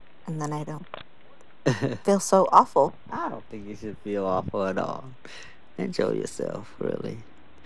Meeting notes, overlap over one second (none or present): none